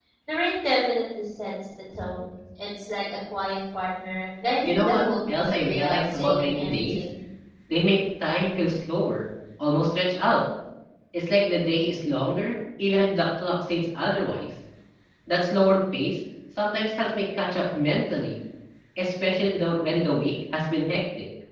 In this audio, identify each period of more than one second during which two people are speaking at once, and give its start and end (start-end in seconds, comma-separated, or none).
4.6-7.0